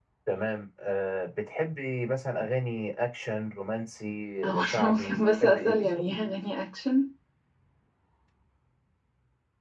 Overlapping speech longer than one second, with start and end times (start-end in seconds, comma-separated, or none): 4.6-6.0